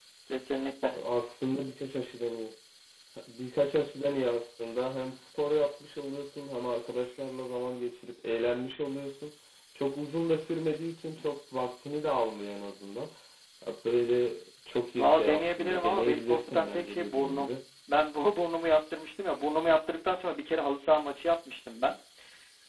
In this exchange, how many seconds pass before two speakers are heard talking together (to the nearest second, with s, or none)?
15 s